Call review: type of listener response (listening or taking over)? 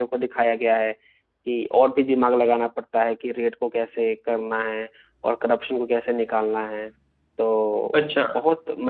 listening